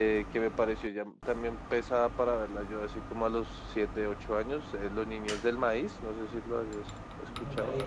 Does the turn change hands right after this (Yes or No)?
Yes